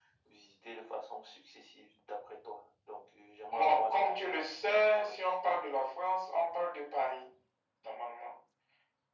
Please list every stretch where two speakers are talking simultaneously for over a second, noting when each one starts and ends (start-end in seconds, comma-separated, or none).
3.5-5.3